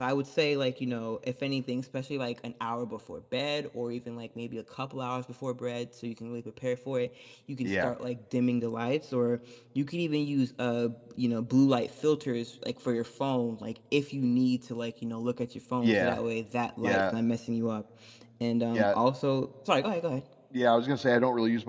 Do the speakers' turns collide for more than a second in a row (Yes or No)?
No